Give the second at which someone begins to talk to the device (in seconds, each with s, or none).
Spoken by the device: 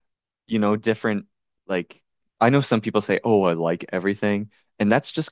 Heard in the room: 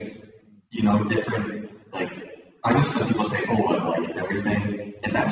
none